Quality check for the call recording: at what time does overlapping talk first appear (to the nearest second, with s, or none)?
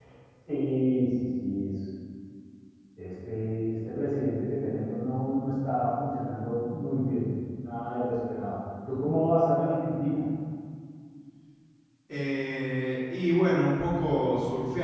none